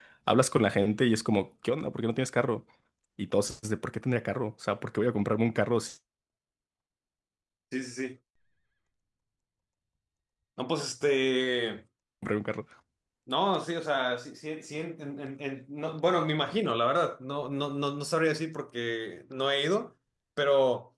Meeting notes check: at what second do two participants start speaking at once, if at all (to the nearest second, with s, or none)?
none